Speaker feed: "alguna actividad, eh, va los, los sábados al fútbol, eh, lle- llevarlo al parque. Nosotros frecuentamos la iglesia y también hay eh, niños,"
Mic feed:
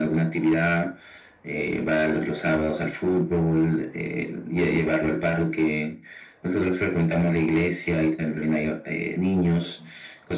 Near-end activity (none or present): none